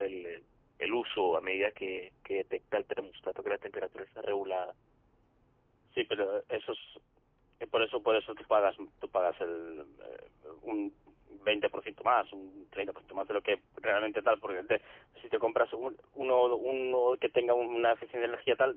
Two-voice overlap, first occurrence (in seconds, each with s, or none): none